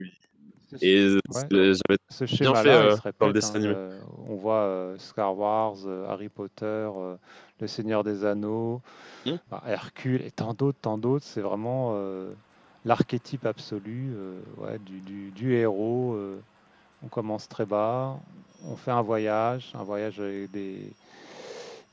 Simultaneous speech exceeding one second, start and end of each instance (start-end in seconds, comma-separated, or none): 2.4-3.8